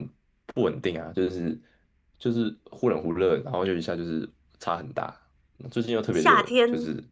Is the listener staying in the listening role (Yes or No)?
No